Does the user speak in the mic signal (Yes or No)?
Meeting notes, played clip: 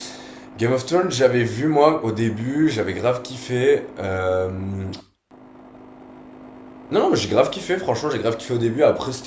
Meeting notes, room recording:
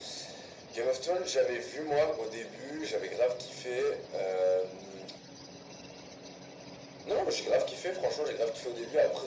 No